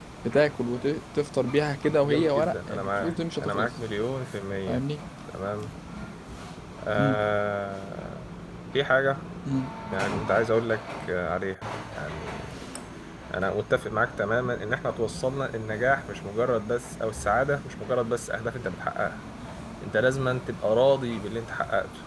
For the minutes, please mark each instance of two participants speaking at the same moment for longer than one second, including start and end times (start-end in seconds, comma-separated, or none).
2.0-3.7